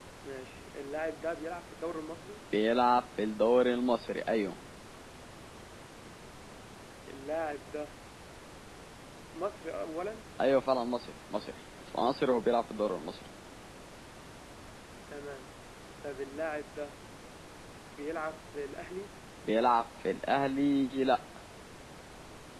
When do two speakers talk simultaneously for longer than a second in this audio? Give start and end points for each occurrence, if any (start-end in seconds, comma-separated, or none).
none